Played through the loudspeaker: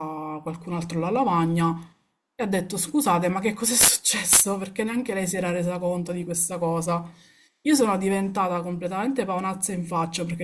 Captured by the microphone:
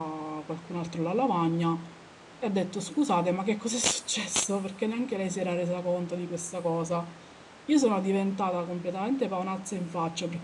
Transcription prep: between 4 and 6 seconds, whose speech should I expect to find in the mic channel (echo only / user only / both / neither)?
echo only